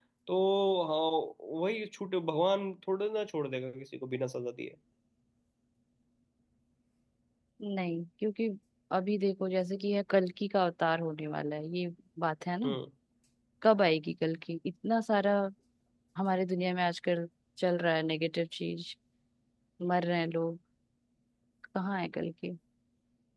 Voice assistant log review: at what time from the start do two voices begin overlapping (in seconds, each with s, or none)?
none